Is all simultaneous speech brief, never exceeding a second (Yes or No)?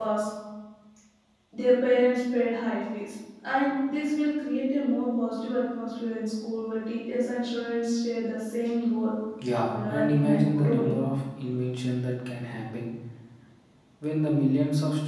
No